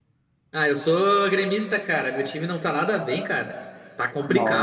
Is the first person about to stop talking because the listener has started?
Yes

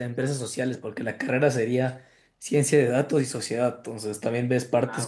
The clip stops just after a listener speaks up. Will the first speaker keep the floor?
Yes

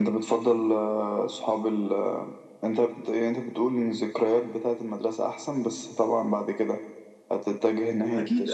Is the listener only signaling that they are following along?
No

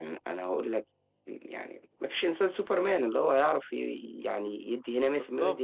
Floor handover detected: Yes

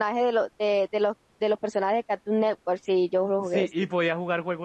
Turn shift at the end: Yes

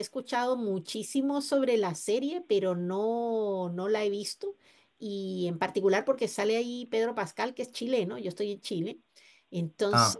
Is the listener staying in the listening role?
Yes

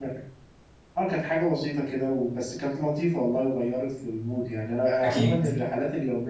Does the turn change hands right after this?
No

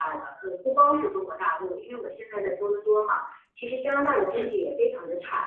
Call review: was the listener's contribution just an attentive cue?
Yes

